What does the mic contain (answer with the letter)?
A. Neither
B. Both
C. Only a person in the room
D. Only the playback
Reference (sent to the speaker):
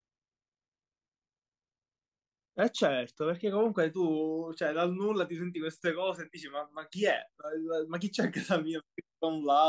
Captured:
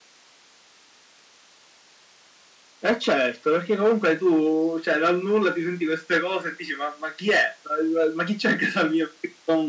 D